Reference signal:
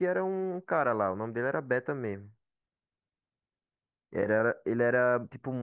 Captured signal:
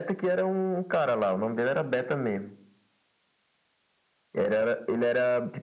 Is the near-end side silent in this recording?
Yes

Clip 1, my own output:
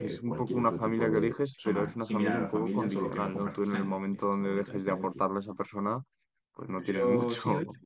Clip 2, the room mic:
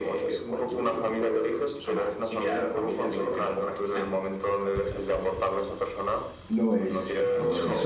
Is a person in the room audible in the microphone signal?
Yes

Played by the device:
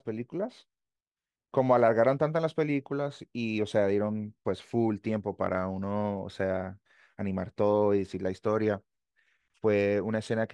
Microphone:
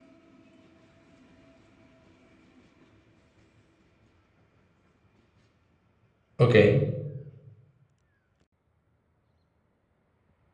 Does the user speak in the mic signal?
Yes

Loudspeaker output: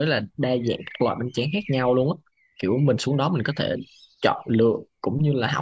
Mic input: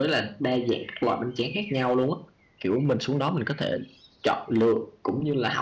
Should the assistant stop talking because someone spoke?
No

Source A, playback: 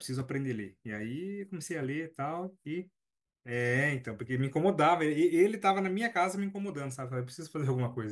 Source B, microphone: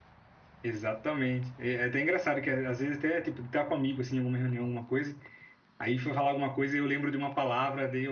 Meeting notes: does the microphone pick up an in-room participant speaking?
Yes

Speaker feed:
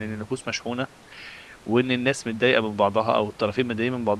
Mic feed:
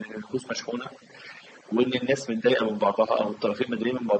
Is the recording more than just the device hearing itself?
No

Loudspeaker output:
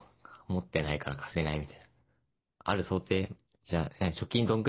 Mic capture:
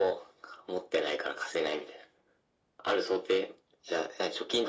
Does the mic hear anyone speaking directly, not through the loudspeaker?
No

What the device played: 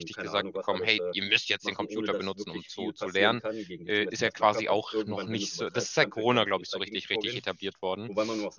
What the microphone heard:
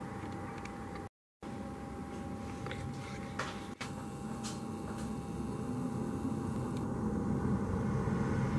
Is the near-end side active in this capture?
No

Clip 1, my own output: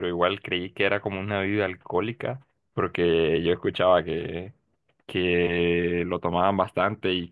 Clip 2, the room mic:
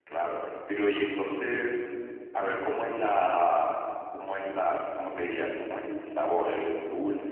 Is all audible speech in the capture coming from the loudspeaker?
No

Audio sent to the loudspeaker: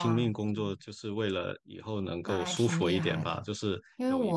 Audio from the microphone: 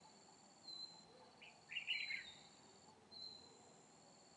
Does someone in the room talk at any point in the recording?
No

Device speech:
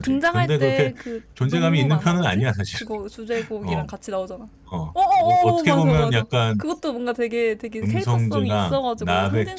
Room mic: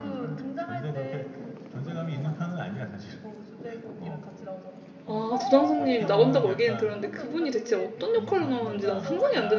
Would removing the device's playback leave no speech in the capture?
No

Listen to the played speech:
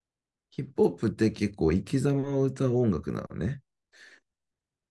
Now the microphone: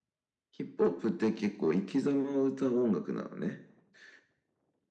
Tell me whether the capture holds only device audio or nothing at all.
Yes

